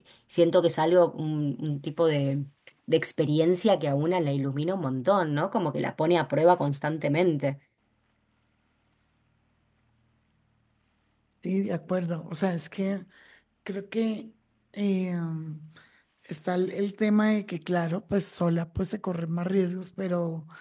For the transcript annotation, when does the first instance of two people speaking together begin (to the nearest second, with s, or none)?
none